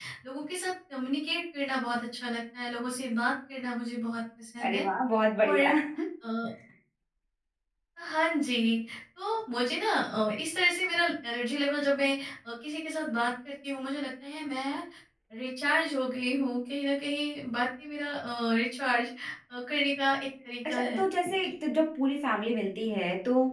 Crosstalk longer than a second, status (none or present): none